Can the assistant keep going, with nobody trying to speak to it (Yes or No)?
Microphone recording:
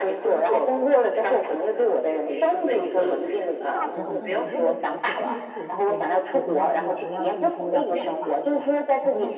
No